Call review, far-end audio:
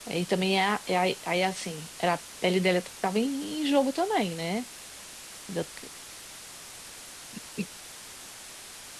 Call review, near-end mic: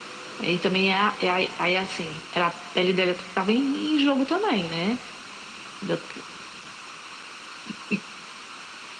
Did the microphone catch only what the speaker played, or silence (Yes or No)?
Yes